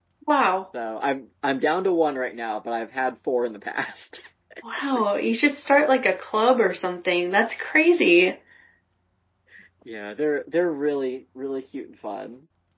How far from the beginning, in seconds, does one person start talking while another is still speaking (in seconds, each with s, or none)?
none